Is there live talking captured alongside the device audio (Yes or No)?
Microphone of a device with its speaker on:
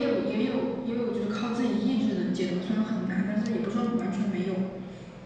No